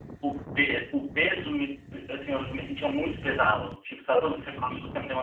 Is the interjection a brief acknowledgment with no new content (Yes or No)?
Yes